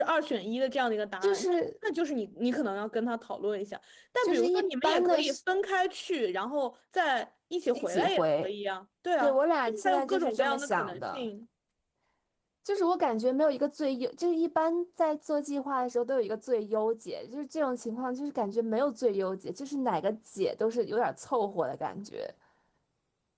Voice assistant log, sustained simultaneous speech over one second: present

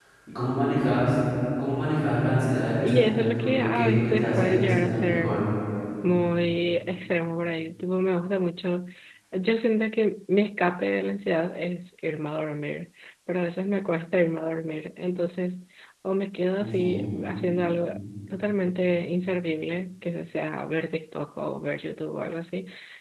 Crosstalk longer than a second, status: present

